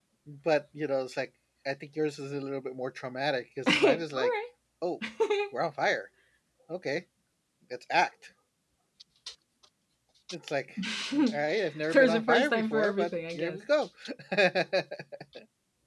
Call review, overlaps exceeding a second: present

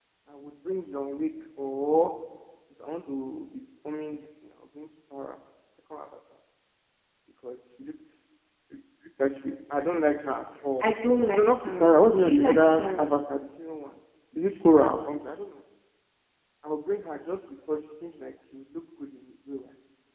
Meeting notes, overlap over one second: present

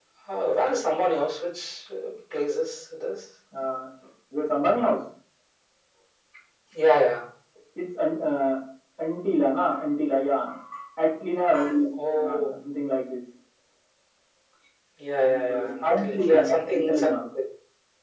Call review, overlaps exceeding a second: present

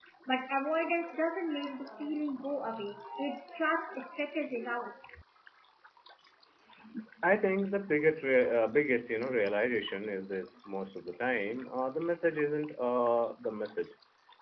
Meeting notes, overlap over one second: none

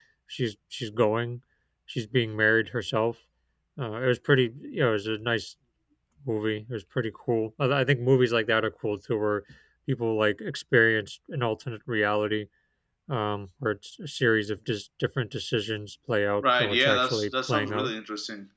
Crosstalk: present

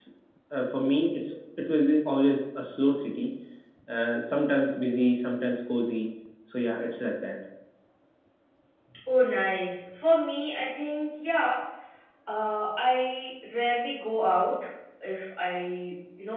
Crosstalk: none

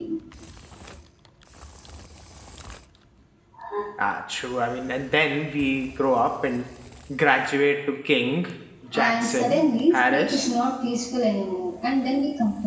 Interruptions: present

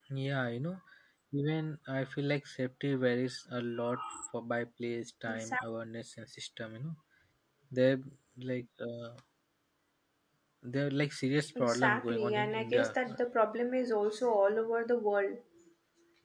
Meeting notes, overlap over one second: present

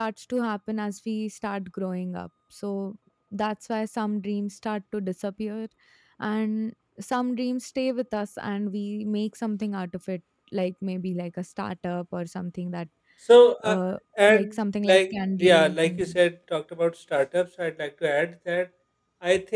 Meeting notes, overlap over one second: present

